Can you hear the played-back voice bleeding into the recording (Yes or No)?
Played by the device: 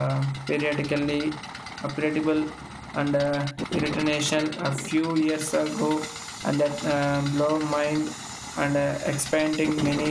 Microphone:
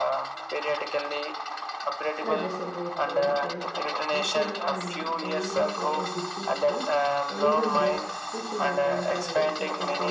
Yes